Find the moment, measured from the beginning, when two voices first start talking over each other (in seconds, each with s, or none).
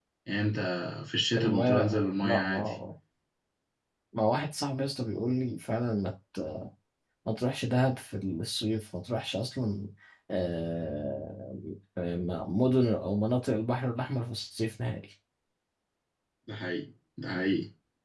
1.4 s